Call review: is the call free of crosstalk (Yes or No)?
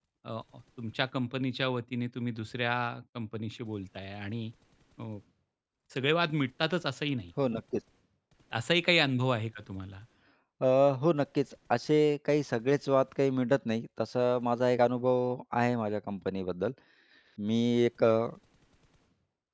Yes